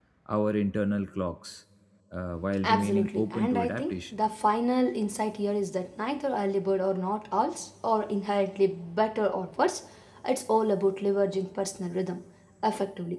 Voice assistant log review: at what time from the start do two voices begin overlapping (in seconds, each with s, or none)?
2.6 s